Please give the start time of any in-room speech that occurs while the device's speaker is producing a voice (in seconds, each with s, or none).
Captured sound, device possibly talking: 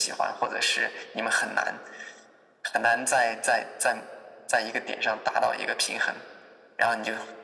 none